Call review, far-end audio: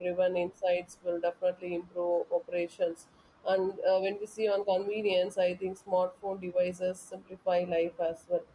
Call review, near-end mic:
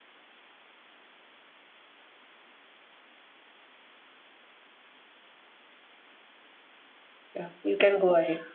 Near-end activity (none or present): present